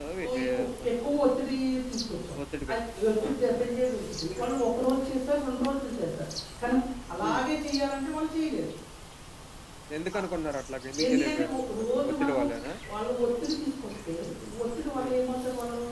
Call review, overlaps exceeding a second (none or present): present